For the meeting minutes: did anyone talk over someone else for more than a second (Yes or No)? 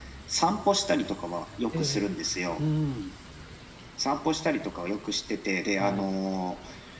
No